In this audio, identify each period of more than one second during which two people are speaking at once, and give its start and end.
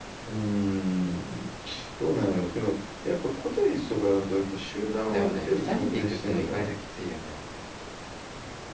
5.1-6.7

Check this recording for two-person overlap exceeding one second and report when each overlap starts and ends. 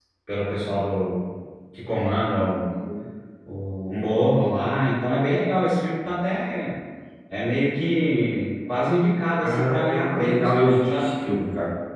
9.4-11.1

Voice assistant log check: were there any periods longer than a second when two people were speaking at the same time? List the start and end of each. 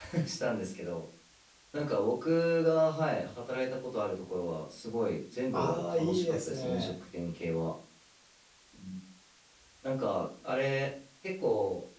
5.5-6.9

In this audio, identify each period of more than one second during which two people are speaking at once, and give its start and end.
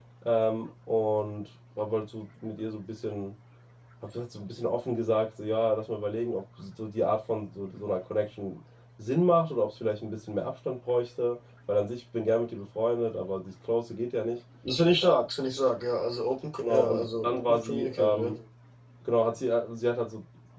16.6-18.3

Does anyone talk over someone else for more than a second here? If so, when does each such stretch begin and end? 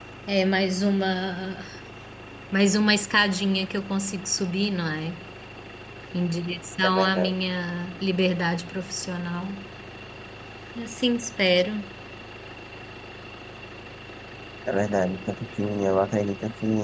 none

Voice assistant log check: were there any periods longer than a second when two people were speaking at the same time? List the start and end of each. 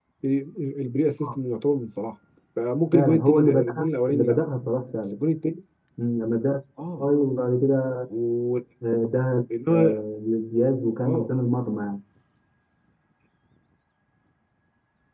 2.9-4.4

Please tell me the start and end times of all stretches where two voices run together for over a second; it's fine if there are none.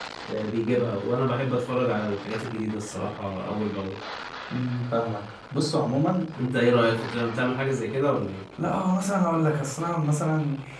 none

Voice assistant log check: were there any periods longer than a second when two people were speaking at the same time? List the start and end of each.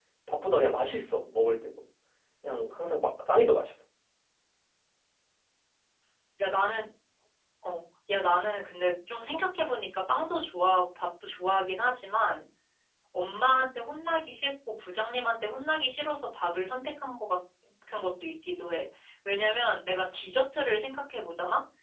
none

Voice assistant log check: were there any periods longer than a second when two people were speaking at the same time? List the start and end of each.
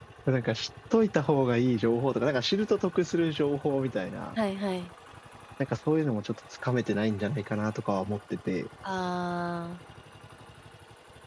none

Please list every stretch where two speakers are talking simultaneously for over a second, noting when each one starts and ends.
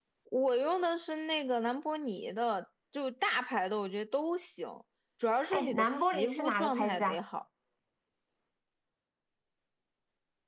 5.5-7.2

